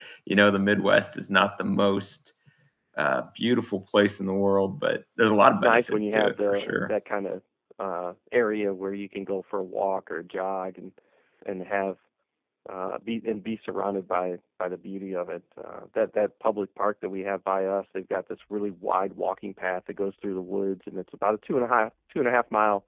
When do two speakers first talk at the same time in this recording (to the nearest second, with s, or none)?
6 s